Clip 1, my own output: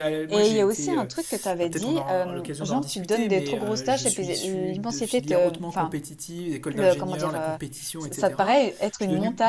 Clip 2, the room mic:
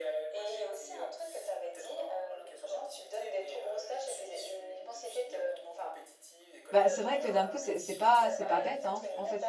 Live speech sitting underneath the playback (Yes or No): No